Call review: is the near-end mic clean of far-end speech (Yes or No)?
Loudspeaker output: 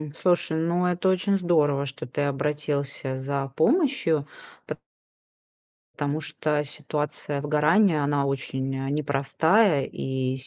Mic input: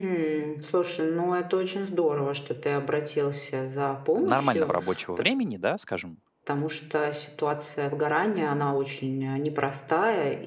No